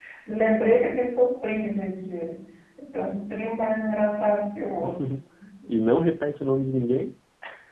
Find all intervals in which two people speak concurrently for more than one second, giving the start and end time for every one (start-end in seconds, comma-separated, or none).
none